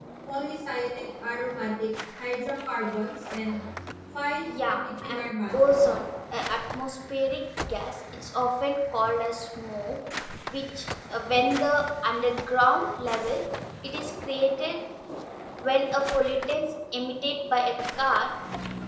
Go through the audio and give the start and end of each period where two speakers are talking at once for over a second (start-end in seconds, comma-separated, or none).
4.4-5.8